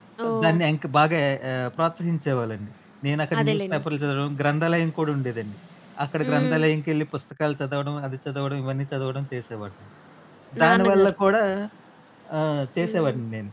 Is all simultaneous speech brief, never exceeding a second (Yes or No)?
Yes